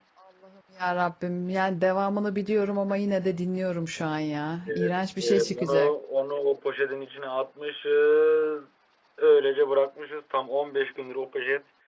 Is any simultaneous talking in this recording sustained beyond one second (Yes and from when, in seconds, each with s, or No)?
Yes, from 4.6 s